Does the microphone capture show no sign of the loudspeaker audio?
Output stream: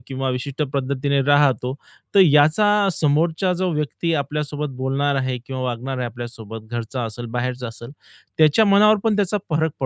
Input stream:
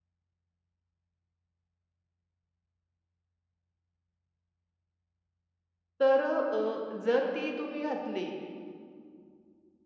Yes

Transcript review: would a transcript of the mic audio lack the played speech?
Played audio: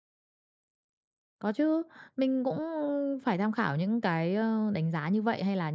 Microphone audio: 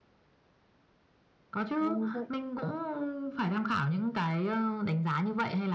No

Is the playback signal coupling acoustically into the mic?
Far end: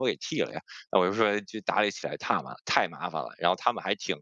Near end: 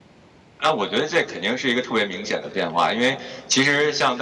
No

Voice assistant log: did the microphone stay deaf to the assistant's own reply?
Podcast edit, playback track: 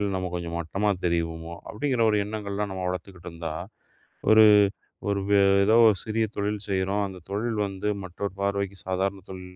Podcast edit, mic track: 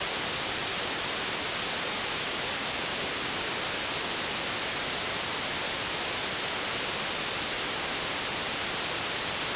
Yes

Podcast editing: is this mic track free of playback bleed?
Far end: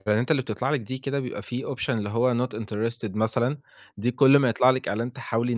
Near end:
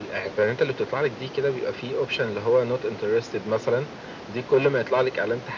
No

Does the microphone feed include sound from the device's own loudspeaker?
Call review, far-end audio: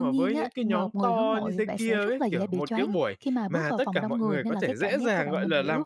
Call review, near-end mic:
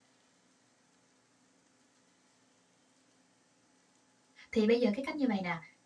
No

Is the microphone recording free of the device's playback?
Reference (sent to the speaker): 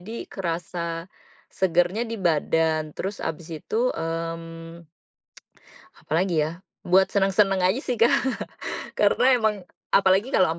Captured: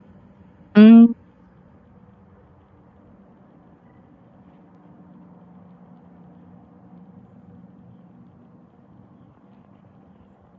Yes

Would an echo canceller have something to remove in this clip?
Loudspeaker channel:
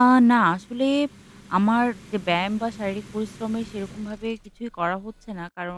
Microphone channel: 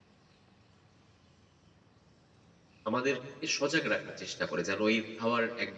No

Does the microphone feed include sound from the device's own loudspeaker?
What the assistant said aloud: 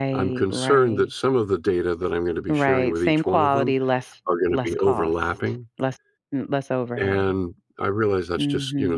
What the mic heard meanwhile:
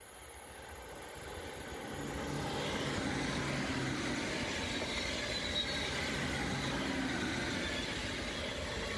No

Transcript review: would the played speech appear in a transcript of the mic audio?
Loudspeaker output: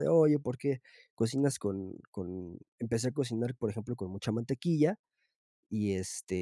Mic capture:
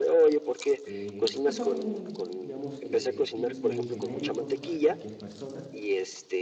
Yes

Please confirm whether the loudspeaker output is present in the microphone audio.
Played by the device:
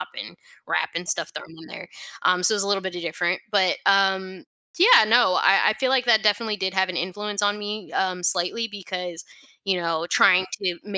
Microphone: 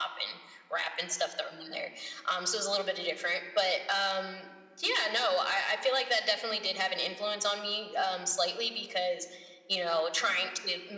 Yes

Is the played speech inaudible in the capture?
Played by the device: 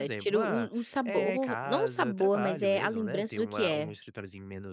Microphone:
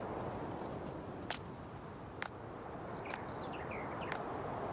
Yes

